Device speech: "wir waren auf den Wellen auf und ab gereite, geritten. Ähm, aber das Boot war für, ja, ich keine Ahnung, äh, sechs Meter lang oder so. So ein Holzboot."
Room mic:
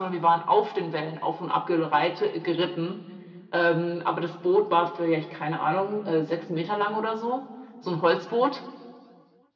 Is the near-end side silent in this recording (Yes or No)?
Yes